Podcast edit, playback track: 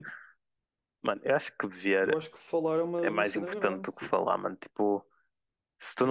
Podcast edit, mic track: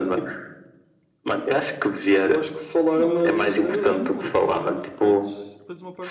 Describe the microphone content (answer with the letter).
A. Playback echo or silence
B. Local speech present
B